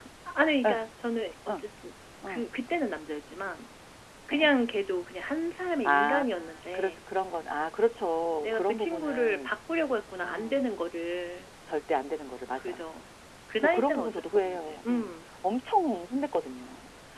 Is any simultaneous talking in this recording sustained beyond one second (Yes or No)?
Yes